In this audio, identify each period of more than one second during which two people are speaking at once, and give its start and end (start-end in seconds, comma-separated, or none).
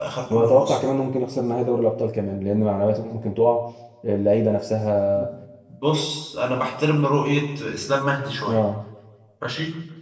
none